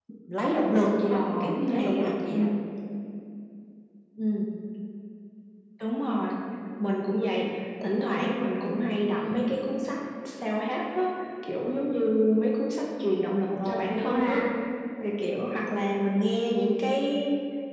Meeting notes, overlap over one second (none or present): present